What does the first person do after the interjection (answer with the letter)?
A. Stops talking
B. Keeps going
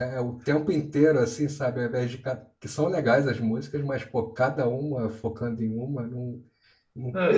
A